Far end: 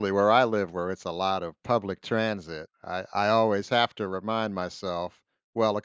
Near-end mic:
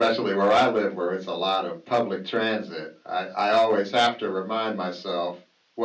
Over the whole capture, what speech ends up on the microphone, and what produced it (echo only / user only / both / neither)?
echo only